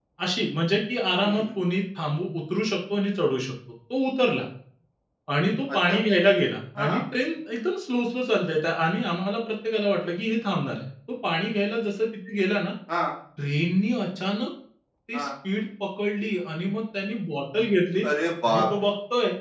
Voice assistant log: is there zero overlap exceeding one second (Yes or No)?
Yes